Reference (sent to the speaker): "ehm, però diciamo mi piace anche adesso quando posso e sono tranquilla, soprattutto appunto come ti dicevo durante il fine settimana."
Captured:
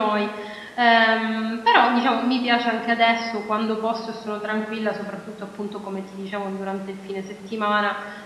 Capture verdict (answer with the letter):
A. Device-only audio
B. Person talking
A